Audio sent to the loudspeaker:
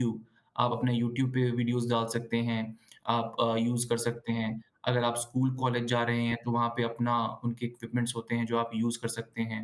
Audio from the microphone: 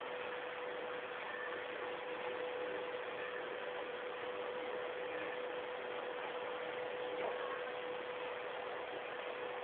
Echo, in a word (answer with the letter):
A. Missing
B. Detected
A